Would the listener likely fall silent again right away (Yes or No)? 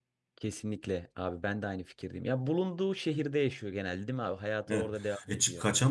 No